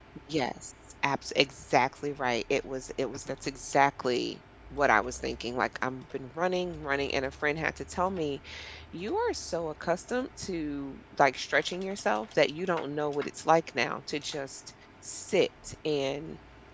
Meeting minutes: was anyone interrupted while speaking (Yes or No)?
No